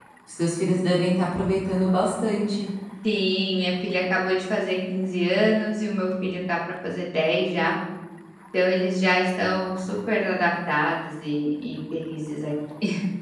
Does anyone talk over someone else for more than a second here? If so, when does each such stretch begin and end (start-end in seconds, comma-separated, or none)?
none